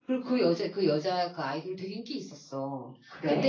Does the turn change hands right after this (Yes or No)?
No